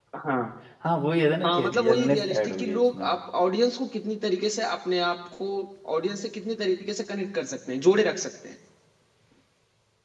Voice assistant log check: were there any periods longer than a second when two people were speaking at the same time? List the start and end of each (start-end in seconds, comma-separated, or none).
1.4-3.1